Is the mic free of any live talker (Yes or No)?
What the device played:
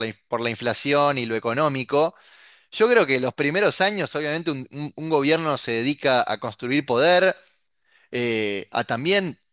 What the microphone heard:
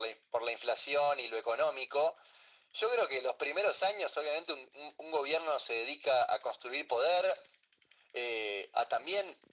Yes